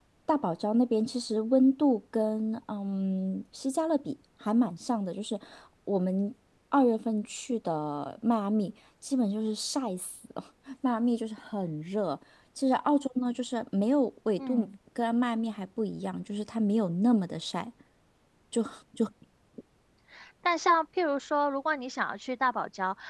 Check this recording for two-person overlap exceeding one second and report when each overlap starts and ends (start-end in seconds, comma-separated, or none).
none